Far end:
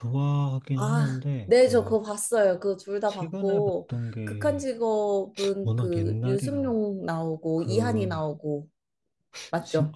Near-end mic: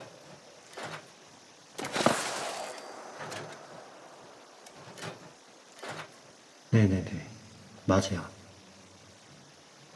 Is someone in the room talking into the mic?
Yes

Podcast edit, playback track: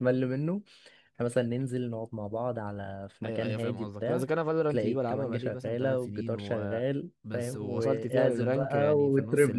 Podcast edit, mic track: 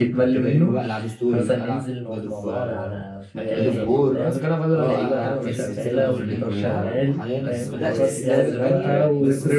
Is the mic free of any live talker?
No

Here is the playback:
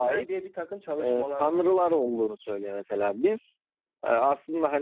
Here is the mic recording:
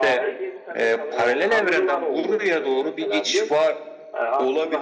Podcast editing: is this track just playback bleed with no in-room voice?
No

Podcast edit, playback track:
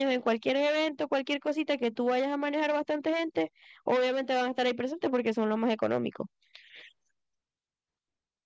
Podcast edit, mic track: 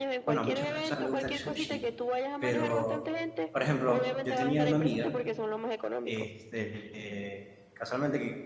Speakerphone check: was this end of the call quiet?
No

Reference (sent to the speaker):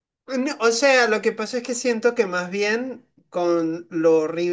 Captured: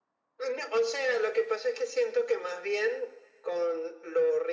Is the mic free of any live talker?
Yes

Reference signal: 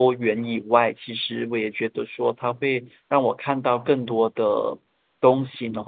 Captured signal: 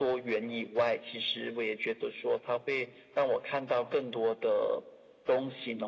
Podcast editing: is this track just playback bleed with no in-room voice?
Yes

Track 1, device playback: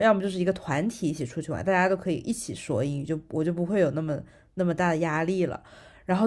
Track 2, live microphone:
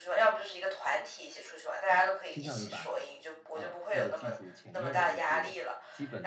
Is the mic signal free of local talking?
No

